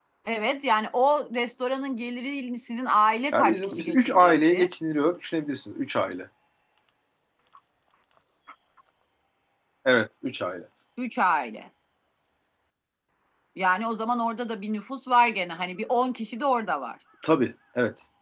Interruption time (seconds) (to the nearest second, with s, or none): 3 s